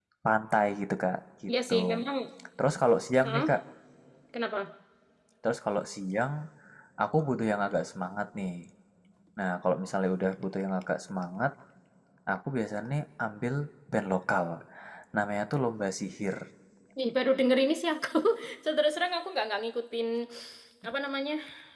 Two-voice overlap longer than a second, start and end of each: none

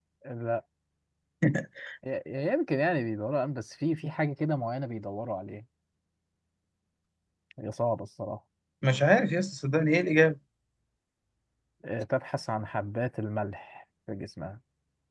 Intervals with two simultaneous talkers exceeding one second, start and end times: none

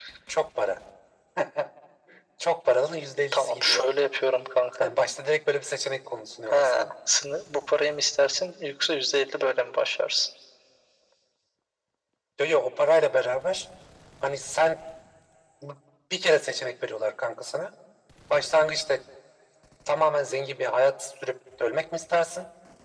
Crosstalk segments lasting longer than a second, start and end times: none

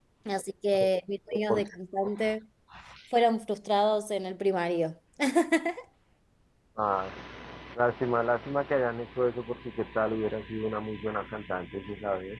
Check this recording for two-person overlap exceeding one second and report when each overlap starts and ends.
none

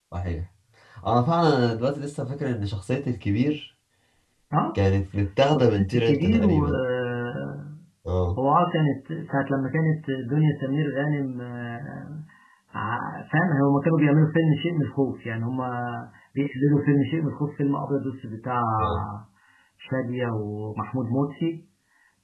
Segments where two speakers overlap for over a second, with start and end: 5.5-6.7

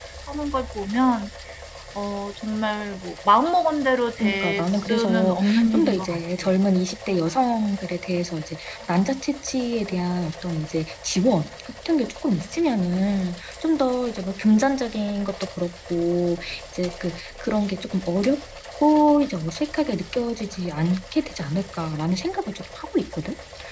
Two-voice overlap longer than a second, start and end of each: 4.2-6.2

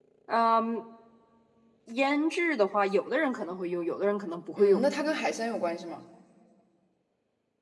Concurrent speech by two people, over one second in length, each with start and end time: none

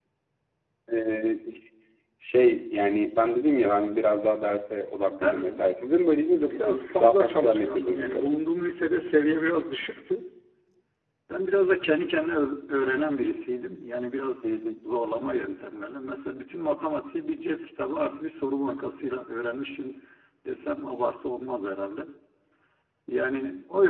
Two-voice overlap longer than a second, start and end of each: 6.3-8.3

